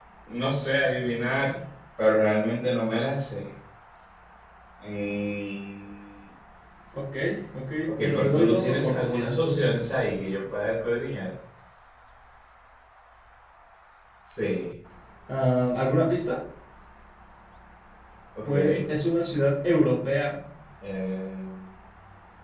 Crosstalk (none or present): present